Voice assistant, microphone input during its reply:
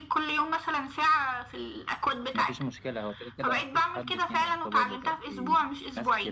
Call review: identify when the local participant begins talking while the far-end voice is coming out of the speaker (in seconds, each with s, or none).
2.4 s